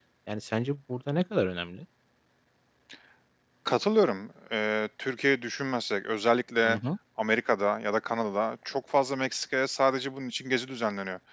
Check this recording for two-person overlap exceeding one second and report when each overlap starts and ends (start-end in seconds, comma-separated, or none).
none